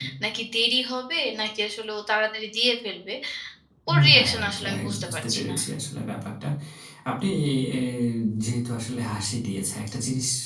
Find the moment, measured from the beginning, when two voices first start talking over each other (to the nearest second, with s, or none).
4 s